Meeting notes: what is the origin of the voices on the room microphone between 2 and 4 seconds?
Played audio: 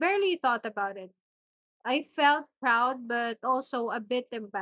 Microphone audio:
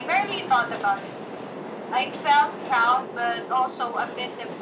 echo only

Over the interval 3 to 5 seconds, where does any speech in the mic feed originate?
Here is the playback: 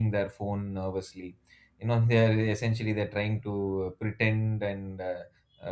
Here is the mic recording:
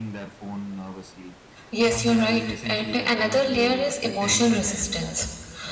both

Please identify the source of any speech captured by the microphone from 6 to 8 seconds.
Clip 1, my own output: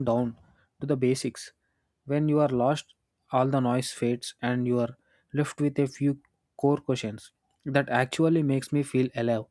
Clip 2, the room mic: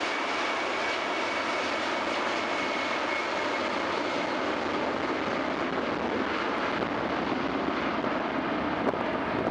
neither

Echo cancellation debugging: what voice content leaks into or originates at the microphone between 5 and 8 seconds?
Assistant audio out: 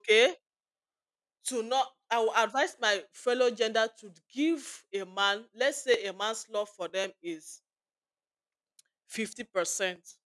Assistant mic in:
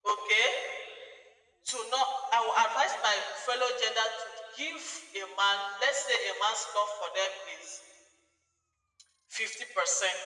echo only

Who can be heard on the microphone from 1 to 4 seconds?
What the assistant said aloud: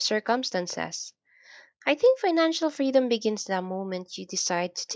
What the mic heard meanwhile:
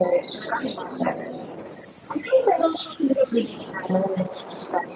echo only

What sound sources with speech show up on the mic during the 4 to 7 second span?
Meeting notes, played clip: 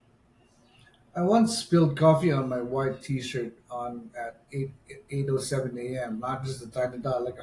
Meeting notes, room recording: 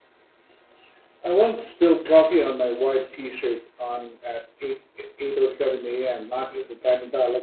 echo only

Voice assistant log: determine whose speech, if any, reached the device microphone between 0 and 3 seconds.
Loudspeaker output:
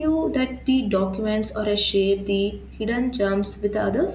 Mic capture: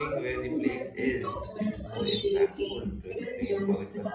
both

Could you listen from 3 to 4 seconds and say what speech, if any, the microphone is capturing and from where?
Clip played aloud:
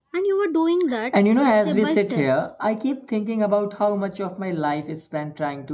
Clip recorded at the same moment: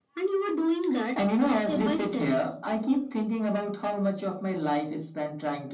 echo only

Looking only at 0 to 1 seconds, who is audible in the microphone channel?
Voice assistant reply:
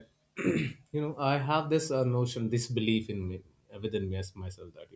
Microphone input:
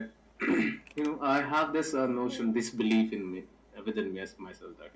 echo only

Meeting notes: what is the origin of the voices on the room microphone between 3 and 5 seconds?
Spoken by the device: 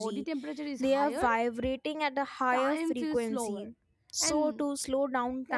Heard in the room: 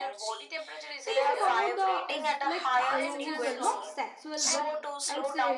both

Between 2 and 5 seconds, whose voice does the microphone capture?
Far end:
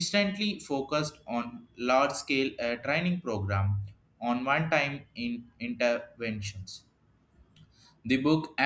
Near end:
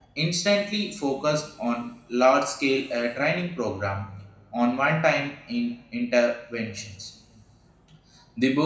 echo only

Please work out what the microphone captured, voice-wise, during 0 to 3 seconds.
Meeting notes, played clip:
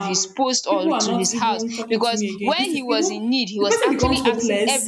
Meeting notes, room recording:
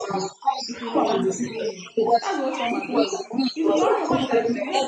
both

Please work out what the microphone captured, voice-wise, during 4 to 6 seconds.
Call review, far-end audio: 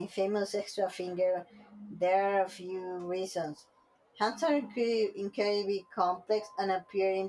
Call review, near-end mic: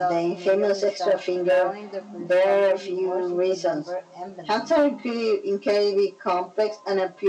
both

